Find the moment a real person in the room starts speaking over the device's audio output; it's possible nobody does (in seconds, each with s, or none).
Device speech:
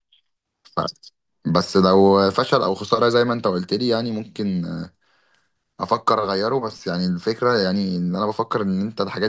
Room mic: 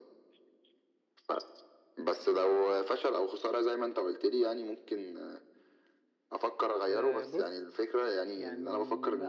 6.9 s